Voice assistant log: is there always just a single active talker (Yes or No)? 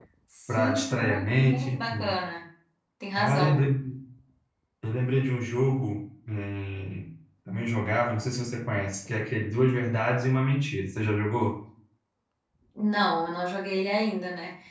No